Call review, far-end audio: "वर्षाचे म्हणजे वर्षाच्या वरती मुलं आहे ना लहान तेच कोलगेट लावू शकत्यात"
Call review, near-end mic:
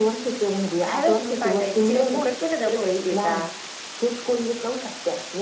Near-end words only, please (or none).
खयालं तुम्ही सांगायचं, त्याचे काय फुकट केलं डवळे वईल आहे का?